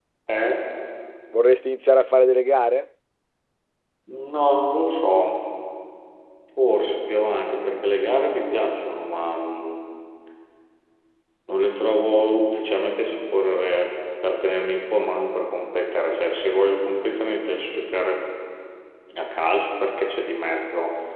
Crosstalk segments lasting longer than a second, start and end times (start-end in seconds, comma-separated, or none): none